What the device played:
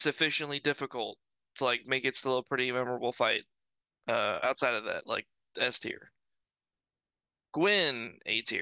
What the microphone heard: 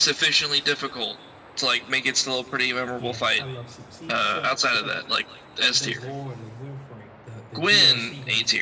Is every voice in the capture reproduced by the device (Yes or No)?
No